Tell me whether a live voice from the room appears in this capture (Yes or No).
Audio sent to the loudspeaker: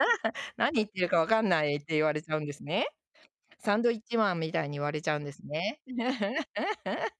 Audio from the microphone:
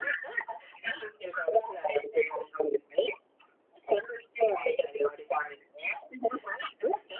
No